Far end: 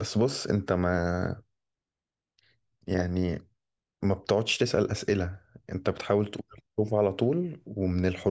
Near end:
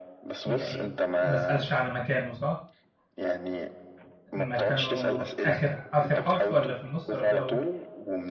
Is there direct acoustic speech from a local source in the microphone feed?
Yes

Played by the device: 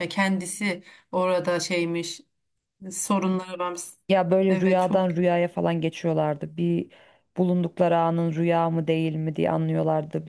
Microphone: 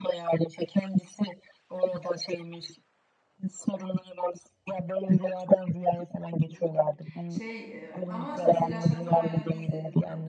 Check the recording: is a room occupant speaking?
Yes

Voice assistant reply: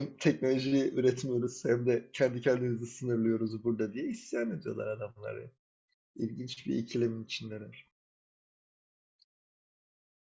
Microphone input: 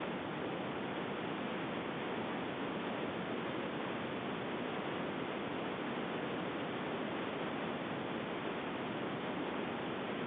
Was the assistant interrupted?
No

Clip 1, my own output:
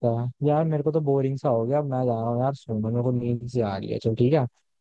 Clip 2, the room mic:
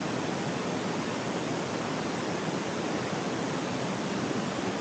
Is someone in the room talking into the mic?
No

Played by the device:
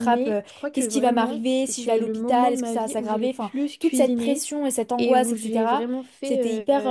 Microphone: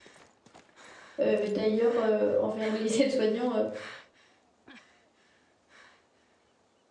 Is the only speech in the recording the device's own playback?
No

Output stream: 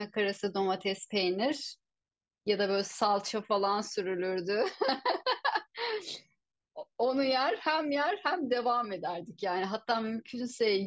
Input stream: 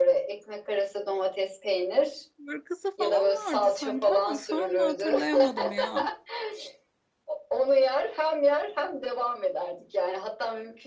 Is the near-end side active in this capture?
Yes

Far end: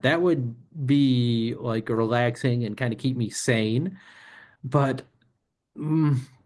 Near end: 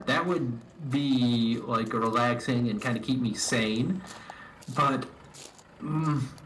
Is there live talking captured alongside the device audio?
No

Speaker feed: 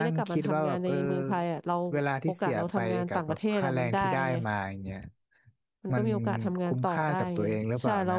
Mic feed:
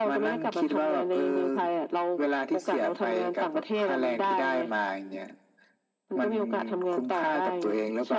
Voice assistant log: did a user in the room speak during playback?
No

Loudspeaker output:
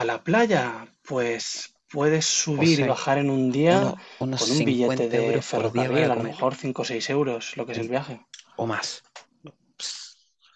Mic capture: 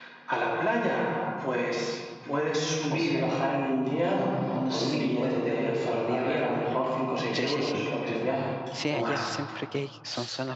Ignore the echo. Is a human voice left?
Yes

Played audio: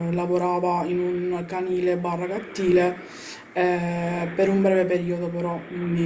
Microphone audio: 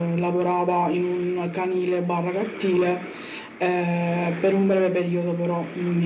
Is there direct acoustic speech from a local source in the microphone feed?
No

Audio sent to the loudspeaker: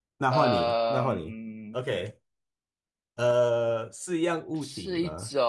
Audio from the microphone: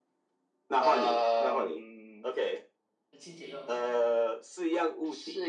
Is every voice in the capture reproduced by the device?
No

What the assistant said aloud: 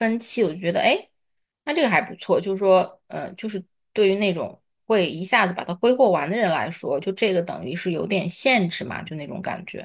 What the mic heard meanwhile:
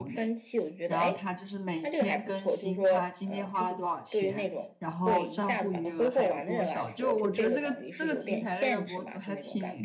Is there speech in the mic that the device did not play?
Yes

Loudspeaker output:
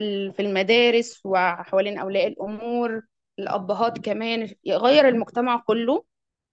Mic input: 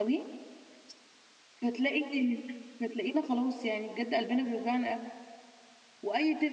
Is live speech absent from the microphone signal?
No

